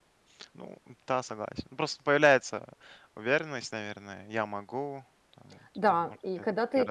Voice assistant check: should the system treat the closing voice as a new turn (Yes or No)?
Yes